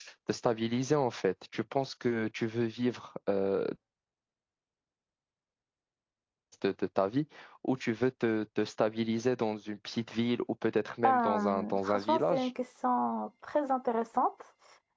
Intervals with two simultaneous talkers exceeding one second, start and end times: 11.1-12.5

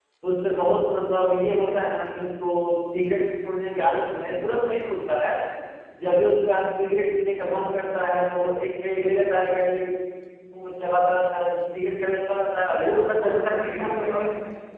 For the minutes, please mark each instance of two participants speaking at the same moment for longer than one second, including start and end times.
12.7-14.1

